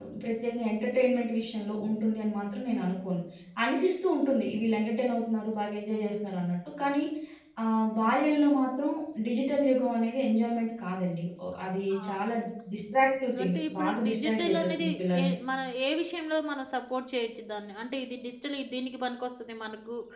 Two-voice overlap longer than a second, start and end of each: 13.4-14.8

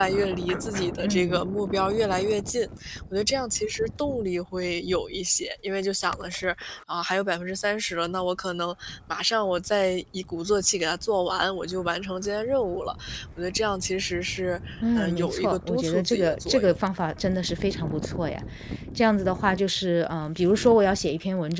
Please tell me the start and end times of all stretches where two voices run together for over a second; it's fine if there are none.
15.0-16.8

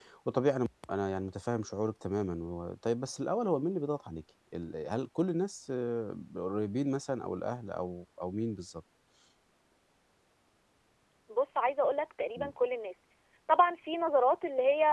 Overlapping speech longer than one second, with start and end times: none

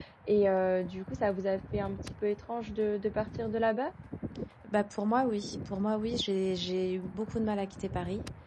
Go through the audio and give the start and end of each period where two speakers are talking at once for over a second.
none

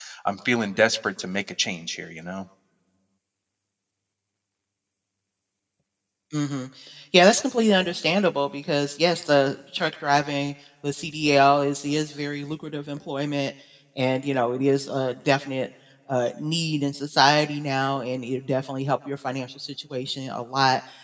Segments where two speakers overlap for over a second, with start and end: none

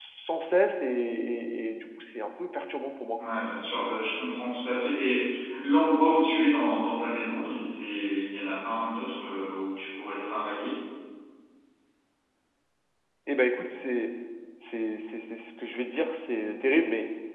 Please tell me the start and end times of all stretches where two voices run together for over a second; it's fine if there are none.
none

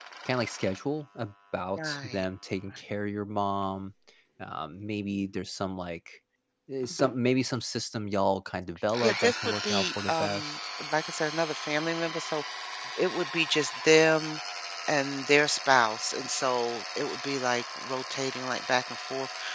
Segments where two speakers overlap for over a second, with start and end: 9.0-10.6

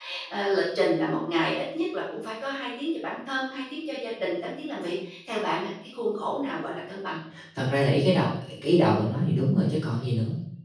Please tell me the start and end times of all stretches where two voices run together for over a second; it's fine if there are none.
none

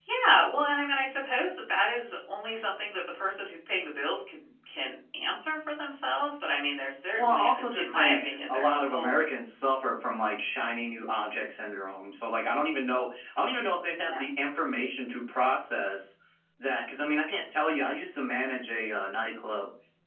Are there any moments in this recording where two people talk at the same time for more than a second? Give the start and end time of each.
7.1-9.1

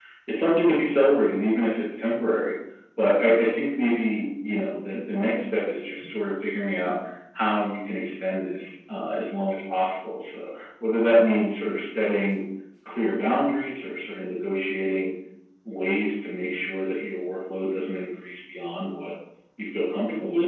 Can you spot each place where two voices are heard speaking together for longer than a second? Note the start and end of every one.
none

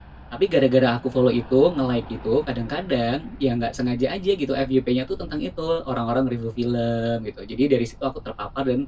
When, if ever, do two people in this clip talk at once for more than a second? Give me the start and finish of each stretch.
none

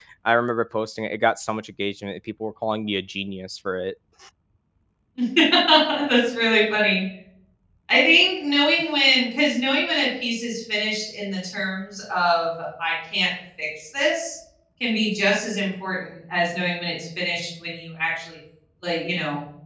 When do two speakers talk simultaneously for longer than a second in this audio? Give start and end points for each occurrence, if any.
none

